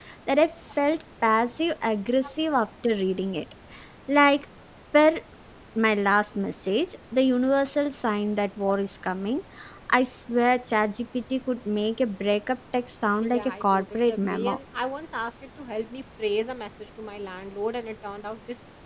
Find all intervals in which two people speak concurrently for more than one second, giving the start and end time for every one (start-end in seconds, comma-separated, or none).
13.2-14.6